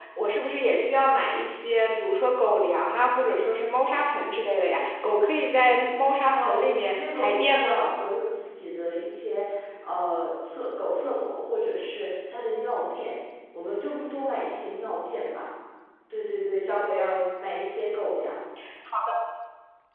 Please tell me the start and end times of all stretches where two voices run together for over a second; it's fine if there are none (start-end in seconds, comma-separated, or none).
6.2-7.9